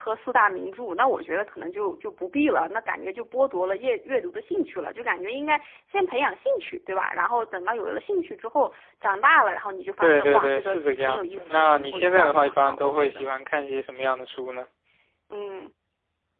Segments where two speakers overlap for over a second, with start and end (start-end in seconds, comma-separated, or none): 10.0-13.3